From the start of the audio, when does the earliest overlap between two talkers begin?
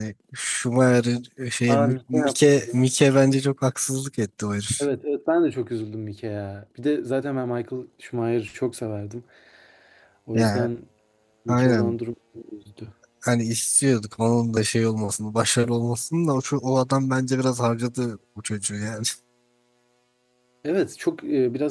1.7 s

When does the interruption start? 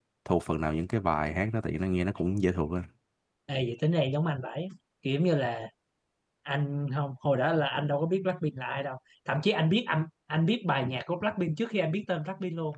none

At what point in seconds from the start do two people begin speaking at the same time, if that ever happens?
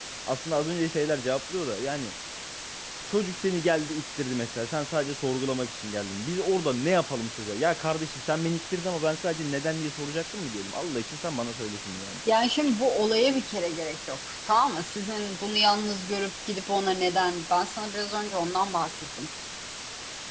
none

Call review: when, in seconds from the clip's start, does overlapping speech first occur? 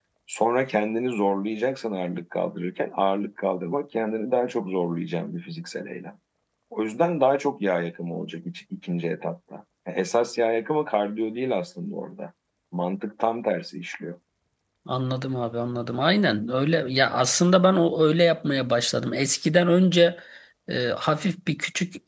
none

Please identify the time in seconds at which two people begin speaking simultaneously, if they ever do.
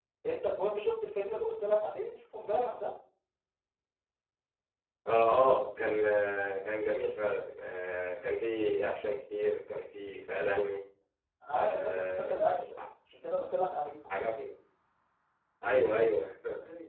11.5 s

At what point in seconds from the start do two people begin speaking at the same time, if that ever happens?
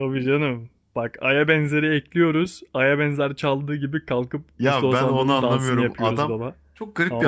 4.6 s

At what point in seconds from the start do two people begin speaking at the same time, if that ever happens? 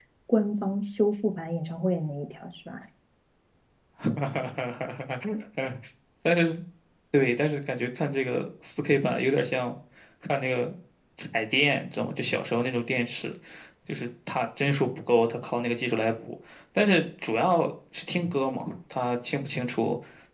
none

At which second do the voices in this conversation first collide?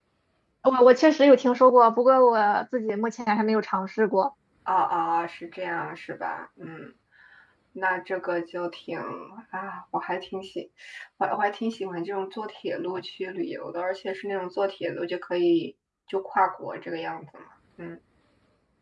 none

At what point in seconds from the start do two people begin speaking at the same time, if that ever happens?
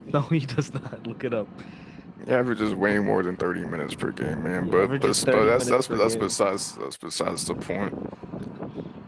4.6 s

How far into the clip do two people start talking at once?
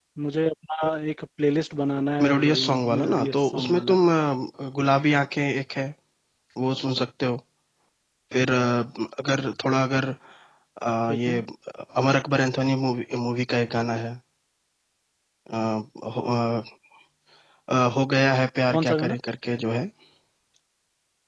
2.2 s

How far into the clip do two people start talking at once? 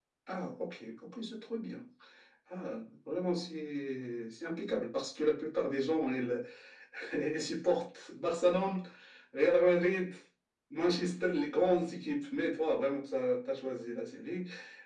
none

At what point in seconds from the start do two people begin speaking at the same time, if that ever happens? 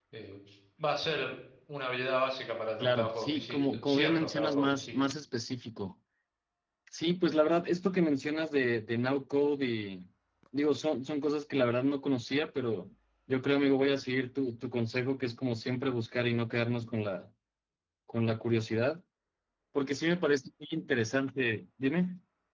2.8 s

